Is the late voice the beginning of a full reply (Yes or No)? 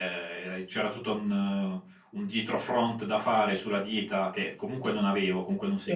No